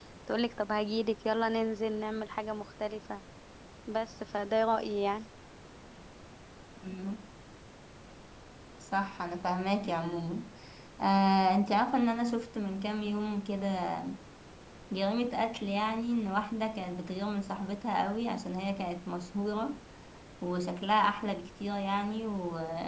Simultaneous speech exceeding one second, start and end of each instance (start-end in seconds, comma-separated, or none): none